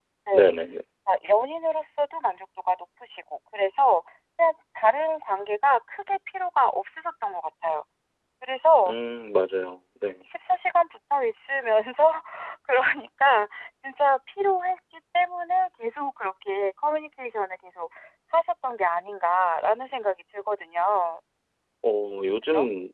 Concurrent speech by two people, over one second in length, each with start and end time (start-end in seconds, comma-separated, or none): none